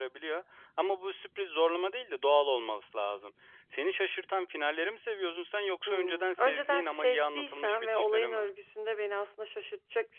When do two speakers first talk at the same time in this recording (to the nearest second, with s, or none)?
6 s